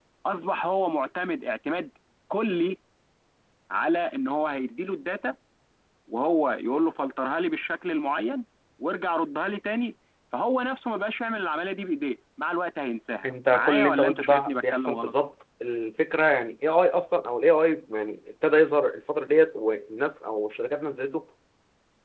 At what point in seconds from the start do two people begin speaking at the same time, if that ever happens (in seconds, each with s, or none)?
13.5 s